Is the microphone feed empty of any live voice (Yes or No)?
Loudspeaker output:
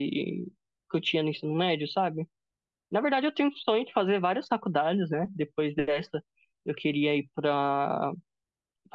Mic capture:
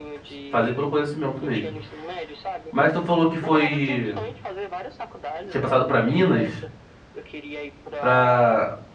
No